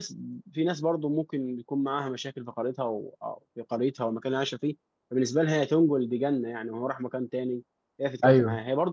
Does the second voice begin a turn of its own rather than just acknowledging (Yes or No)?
No